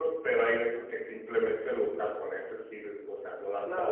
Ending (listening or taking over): taking over